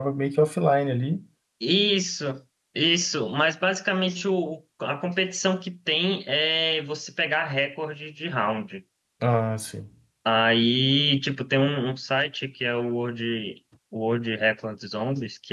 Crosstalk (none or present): none